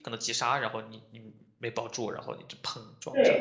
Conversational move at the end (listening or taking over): taking over